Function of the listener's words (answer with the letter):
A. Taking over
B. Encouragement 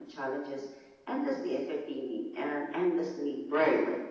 A